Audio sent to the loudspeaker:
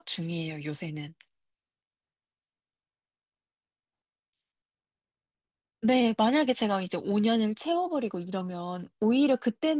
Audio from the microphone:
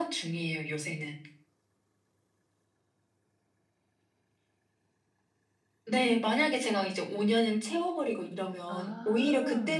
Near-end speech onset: 9 s

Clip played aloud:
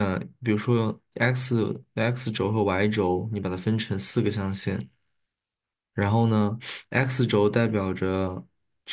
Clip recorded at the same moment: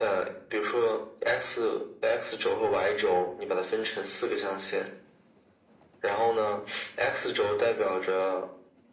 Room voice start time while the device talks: none

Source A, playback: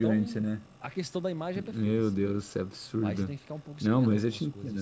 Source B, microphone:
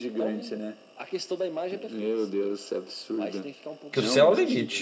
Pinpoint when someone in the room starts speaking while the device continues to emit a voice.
4 s

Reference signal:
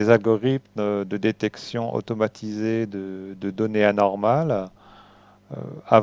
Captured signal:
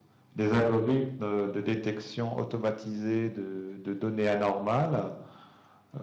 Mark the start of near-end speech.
none

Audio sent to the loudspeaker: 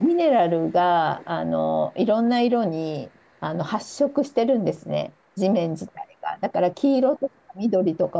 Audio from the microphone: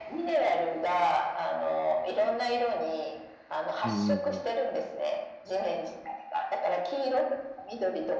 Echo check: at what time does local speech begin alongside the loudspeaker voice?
4 s

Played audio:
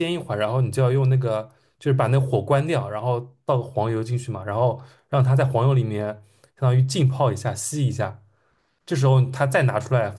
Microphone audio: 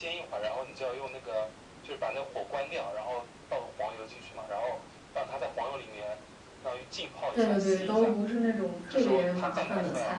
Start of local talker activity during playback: 7 s

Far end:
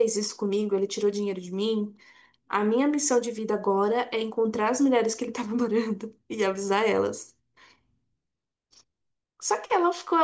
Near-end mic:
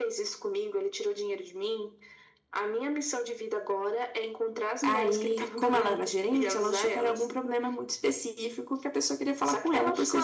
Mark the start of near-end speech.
5 s

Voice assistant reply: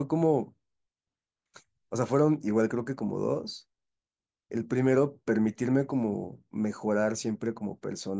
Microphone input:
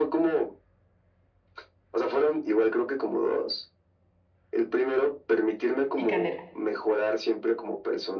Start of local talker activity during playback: 6 s

